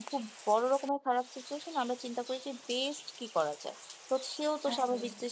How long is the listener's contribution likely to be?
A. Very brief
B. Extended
A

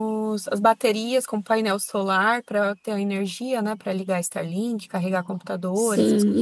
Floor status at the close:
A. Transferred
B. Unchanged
A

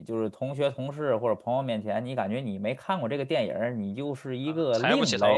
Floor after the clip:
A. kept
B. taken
B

